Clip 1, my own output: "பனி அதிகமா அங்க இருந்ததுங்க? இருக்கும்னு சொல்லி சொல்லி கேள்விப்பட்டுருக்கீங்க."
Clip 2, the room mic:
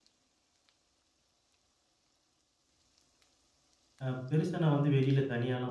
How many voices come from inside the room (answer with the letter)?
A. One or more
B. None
A